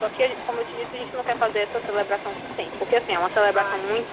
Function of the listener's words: listening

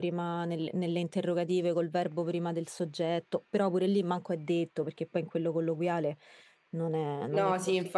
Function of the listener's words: taking over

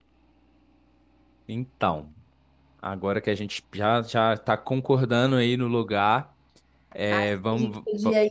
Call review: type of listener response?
taking over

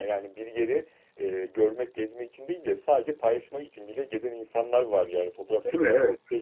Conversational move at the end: listening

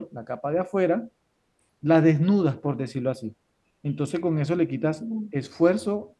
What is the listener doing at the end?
listening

